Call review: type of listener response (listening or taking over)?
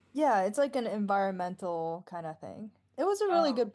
listening